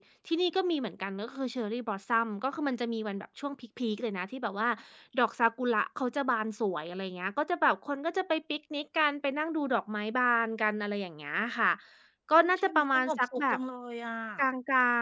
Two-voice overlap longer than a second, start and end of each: 12.4-13.6

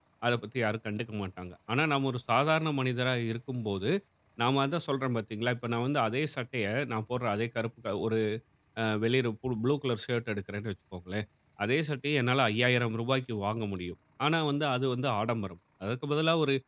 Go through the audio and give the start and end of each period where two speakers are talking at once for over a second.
none

